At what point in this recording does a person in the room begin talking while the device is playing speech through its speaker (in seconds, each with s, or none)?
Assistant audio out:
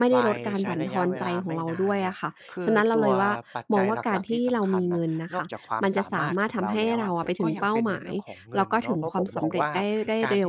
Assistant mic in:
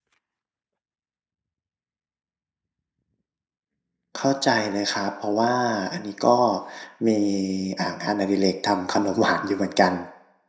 4.2 s